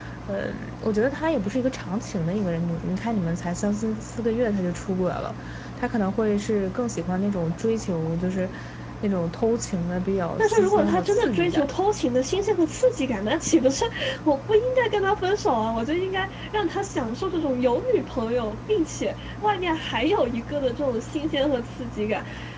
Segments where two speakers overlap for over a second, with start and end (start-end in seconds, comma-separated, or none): 10.4-11.7